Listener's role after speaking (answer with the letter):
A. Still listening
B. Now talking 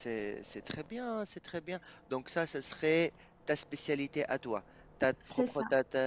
A